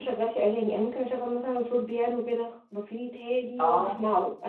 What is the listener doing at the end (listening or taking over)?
listening